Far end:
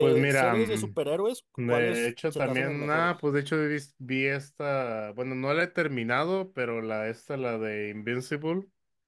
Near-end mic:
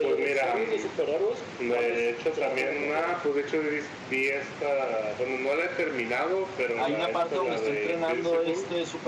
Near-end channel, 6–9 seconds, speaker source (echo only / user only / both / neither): both